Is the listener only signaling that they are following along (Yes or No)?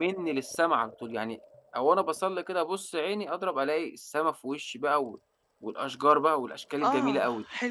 No